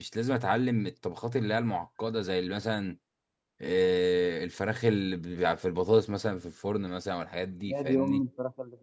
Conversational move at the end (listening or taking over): taking over